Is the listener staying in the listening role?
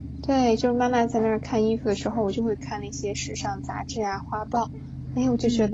No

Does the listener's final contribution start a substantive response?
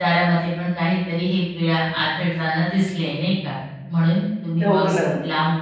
No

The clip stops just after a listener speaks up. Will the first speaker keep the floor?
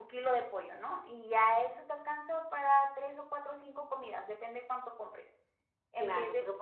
No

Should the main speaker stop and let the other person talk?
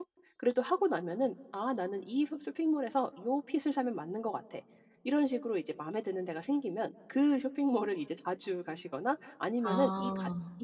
No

